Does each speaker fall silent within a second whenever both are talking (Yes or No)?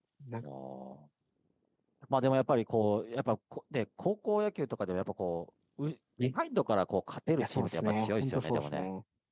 No